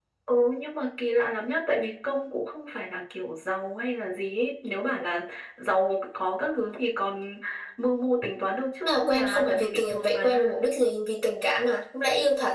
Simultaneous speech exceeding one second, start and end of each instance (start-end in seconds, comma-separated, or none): 8.8-10.5